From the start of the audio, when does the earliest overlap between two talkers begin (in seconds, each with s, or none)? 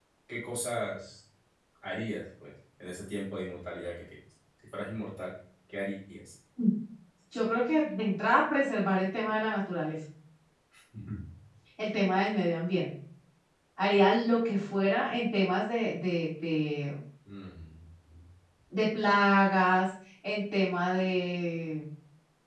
none